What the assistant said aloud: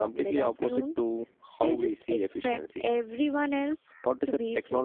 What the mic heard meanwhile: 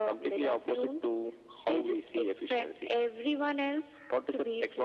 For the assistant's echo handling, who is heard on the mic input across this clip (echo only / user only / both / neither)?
echo only